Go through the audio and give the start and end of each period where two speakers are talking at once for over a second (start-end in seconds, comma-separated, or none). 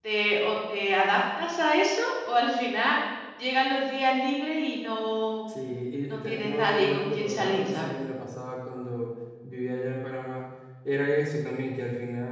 6.1-7.9